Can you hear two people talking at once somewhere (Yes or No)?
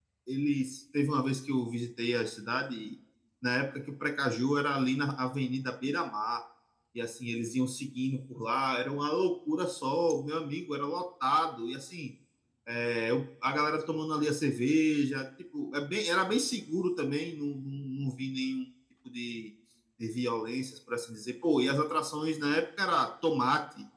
No